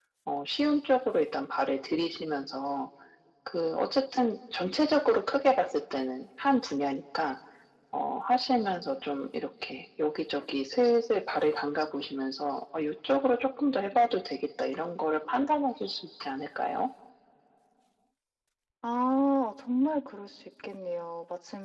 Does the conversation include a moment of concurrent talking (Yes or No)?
No